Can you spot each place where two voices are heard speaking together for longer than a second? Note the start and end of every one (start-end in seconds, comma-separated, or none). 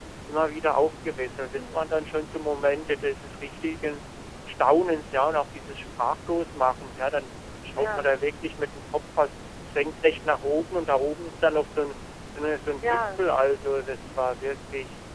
none